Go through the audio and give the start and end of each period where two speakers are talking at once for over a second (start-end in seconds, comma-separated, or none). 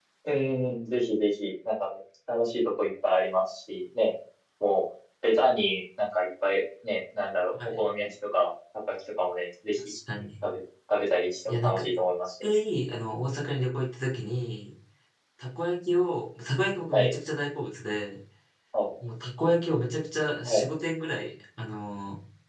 none